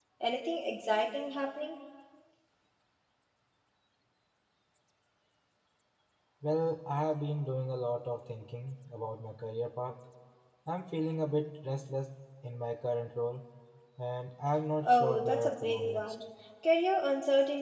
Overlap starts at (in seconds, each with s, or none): 14.8 s